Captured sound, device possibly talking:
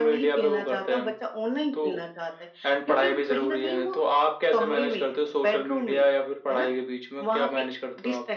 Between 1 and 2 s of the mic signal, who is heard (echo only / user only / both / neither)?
echo only